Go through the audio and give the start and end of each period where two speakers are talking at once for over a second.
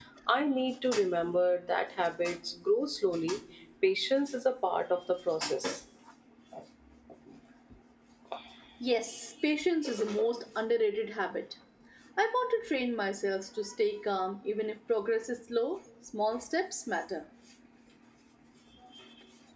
none

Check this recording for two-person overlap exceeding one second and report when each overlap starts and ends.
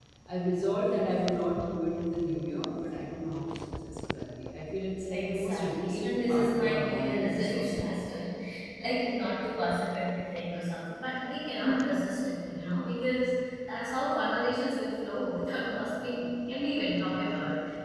5.1-7.8

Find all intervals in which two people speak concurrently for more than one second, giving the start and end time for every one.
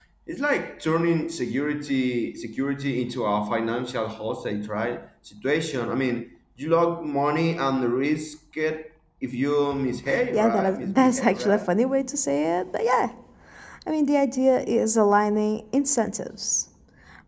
10.3-11.7

